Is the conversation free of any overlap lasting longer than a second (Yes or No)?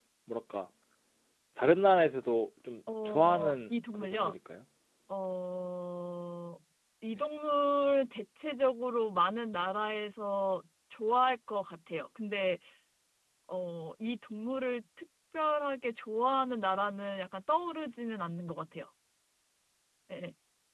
No